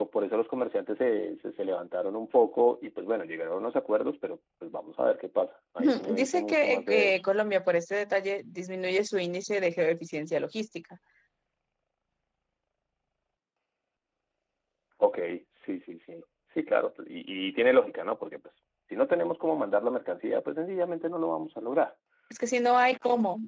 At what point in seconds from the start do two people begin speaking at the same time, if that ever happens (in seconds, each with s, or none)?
5.8 s